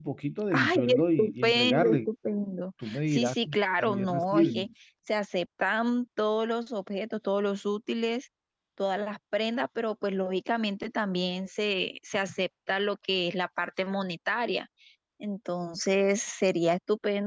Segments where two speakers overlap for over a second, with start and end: 0.5-2.1, 2.8-4.7

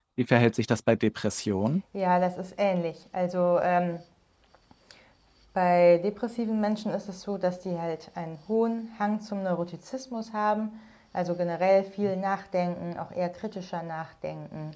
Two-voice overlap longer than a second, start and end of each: none

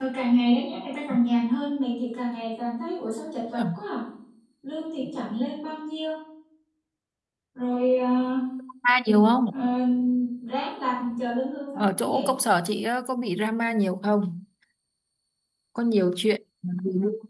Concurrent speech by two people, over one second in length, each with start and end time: none

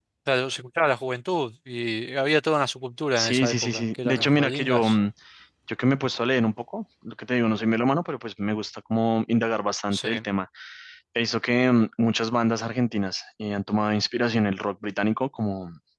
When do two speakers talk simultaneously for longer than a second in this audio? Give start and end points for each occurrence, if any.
3.2-5.0

